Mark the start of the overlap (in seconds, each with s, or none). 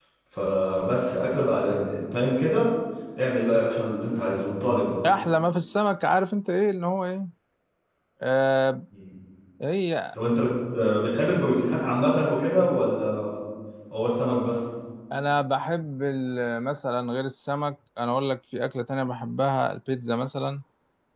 none